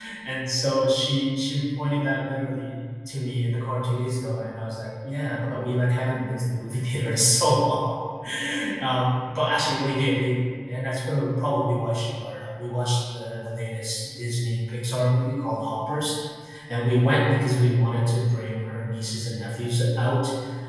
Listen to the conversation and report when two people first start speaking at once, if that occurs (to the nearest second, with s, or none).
none